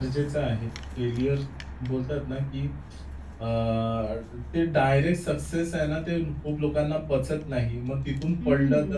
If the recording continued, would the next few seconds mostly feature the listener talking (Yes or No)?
No